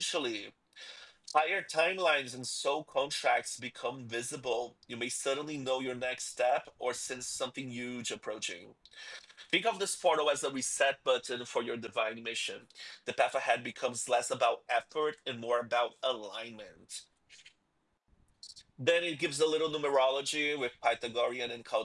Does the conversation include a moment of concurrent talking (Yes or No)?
No